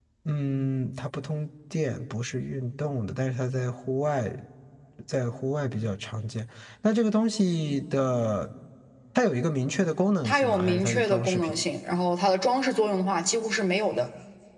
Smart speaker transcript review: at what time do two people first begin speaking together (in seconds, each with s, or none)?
10.2 s